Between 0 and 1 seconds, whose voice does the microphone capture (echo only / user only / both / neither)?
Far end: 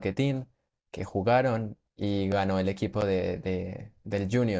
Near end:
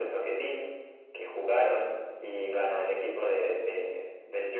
echo only